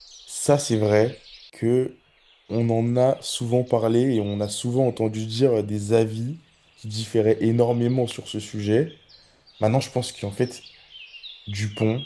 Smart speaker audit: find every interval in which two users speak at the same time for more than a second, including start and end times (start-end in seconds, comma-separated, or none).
none